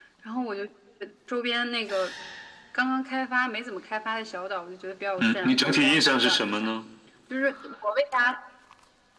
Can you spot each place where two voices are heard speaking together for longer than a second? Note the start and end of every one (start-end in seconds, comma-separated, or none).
5.2-6.7